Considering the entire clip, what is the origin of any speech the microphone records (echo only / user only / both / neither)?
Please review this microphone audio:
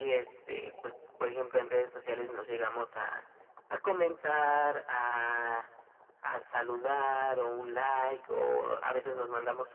echo only